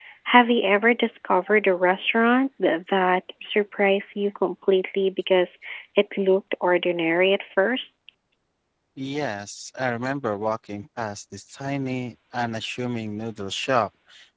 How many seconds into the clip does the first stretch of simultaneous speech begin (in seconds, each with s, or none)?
none